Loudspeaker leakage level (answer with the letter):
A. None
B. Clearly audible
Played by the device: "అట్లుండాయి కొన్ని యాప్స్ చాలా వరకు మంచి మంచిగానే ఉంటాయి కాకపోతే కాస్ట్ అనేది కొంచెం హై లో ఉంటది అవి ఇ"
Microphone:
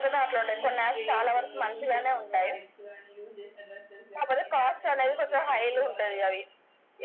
B